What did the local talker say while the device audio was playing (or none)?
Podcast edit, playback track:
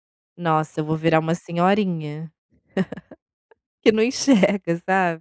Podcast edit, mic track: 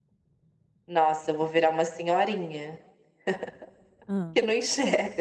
Hã.